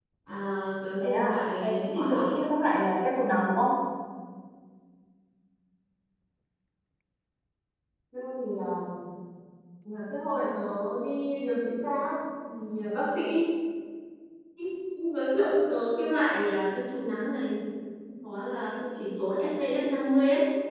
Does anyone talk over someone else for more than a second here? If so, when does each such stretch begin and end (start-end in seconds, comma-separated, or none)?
1.0-2.3